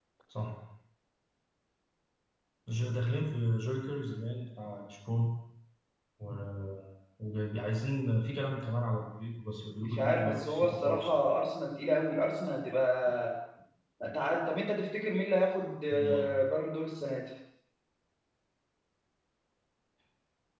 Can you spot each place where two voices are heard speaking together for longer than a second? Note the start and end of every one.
9.8-11.1

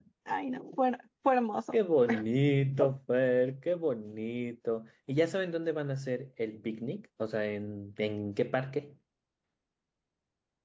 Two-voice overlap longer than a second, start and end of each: none

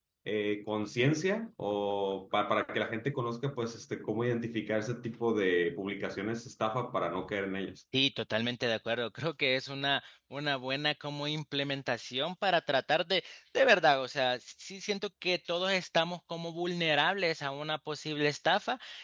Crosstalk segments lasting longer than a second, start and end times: none

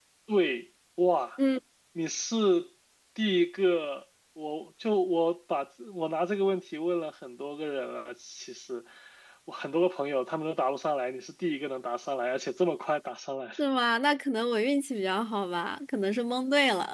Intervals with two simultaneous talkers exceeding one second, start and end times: none

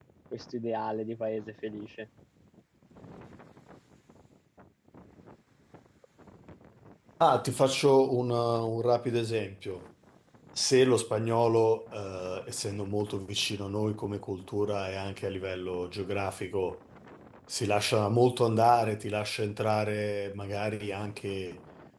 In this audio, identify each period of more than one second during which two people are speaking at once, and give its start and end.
none

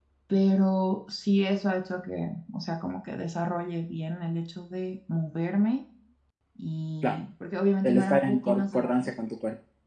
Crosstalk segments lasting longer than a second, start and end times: 7.8-9.1

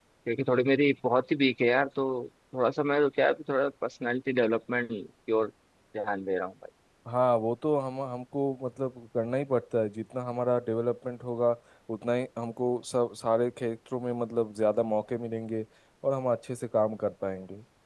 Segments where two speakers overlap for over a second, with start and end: none

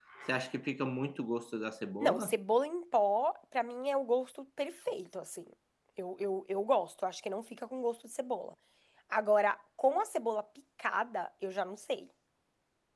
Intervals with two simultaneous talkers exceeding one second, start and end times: none

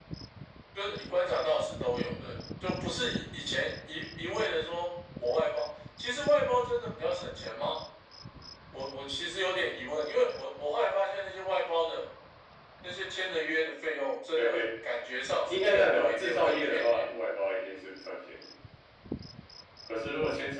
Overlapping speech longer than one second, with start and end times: 15.5-17.0

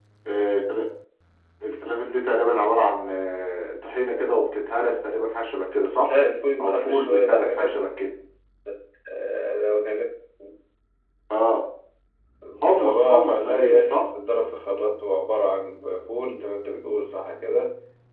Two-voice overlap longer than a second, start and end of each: 6.6-7.9, 12.6-14.0

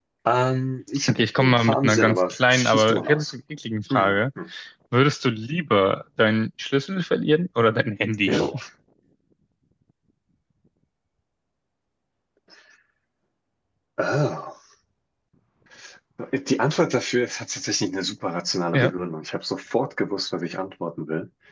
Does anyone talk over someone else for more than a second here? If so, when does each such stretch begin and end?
1.1-3.2

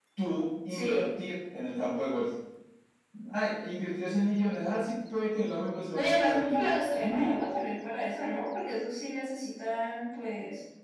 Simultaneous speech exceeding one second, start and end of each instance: 5.9-7.4

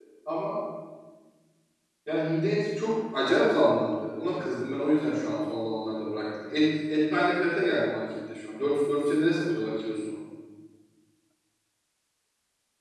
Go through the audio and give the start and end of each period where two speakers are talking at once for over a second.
none

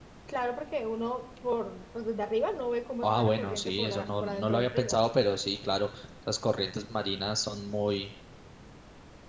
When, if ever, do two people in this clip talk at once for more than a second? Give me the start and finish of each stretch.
3.0-5.0

